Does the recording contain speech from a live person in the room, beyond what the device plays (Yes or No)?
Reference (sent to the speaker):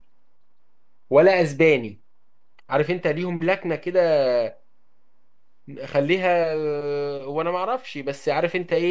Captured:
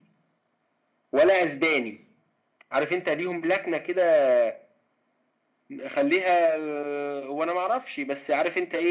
No